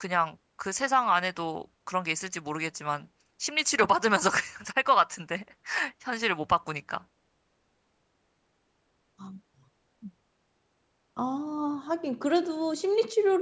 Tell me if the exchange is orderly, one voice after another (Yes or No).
Yes